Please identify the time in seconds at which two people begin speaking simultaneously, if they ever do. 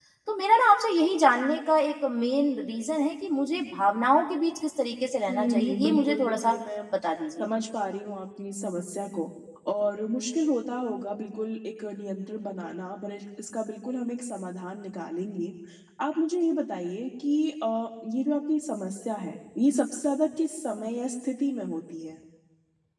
5.3 s

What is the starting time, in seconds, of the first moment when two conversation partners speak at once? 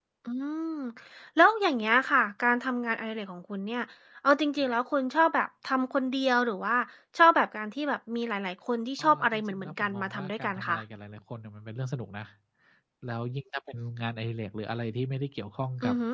9.0 s

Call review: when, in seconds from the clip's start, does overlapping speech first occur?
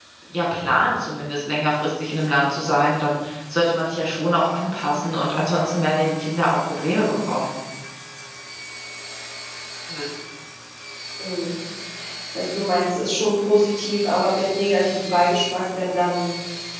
none

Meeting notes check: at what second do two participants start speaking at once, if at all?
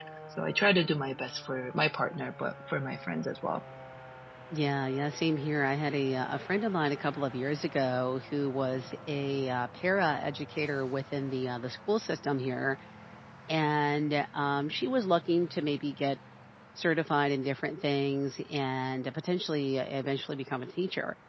none

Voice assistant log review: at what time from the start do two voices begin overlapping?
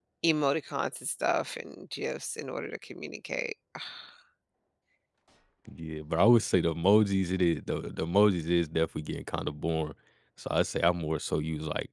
none

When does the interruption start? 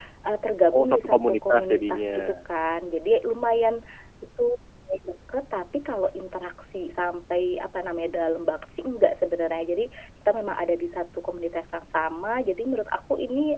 0.7 s

